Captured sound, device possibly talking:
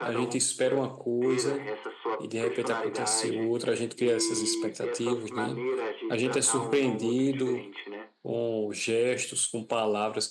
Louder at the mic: user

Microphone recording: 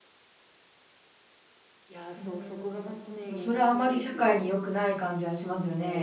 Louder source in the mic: user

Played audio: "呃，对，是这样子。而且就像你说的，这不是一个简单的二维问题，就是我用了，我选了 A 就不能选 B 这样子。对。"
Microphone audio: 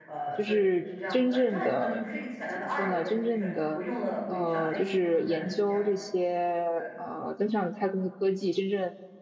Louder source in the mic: user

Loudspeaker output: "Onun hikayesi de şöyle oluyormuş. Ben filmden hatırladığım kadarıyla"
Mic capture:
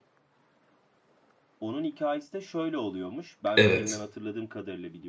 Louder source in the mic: user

